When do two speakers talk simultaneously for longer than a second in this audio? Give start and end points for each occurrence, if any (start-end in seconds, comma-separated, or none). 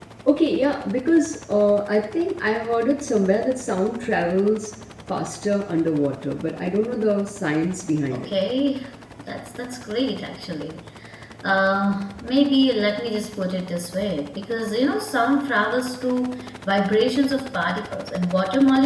none